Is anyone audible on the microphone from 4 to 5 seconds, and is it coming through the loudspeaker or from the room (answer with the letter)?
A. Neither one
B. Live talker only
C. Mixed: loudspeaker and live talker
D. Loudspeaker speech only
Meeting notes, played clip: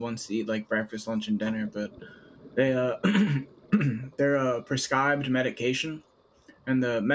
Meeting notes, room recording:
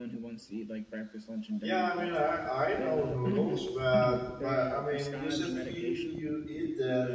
C